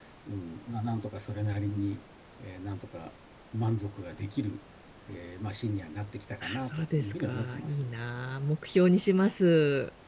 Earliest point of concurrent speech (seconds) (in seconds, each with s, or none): 6.4 s